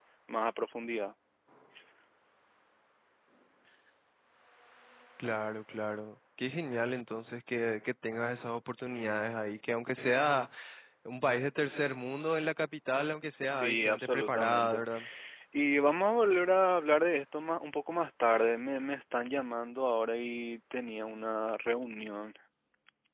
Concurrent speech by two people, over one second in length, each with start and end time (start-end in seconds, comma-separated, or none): 13.6-14.8